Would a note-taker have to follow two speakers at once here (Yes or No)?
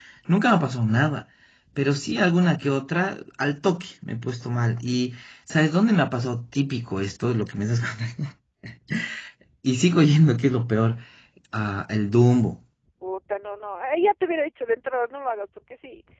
No